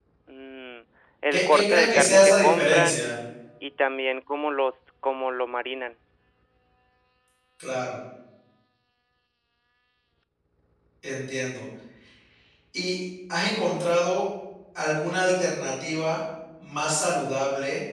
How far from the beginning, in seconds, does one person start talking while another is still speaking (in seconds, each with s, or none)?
1.3 s